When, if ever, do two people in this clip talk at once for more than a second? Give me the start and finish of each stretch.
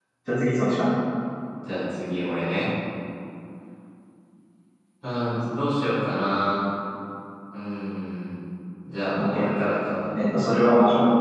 none

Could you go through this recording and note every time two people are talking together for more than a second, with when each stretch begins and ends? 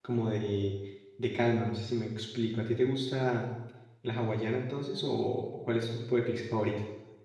none

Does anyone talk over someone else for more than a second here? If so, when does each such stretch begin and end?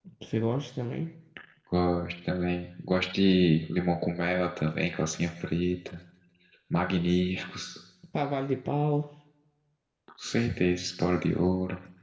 none

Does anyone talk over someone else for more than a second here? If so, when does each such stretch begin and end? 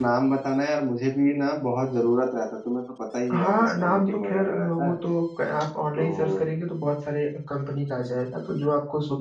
3.4-4.9

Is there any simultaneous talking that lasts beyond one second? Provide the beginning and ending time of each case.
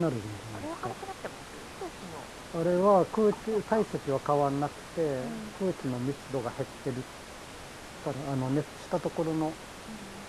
none

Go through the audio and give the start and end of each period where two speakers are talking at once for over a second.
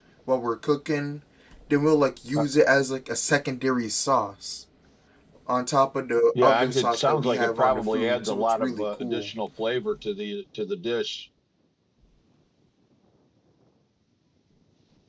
6.4-9.3

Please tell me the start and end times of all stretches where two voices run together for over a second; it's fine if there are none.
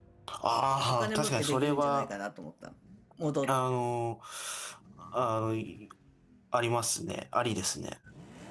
0.9-2.1

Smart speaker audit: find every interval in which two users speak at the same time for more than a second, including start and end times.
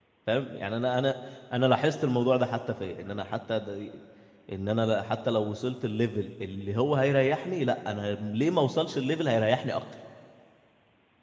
none

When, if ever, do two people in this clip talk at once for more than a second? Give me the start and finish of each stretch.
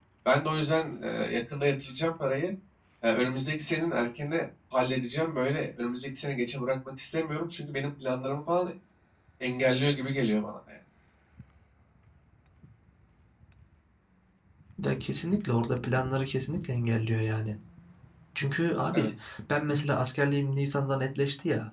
none

